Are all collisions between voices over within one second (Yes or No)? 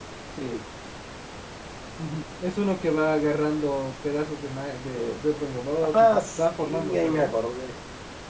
No